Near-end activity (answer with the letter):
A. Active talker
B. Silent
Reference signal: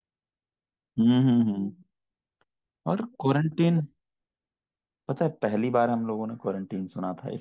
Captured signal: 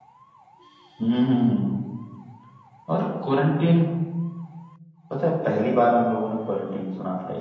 B